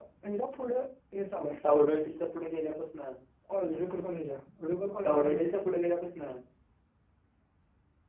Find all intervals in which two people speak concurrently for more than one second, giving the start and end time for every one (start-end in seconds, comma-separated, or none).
none